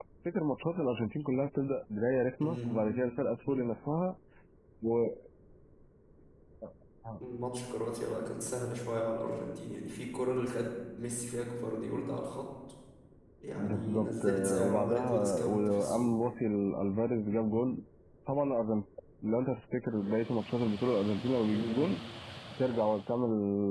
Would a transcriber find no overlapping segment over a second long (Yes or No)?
No